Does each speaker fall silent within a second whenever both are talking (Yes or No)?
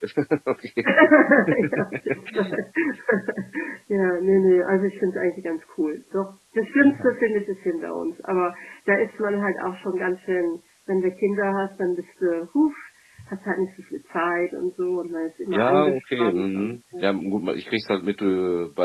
No